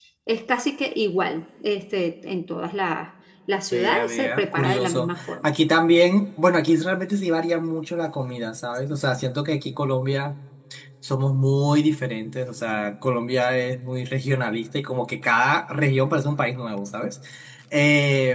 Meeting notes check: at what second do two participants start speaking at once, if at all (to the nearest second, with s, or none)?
4 s